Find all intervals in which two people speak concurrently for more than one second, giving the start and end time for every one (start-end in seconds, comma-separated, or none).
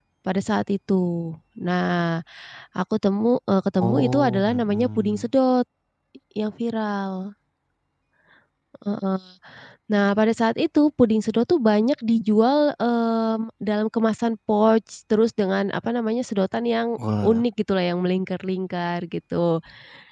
3.8-5.3